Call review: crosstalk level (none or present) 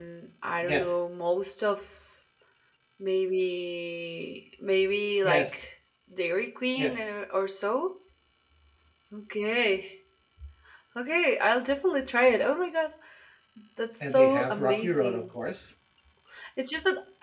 present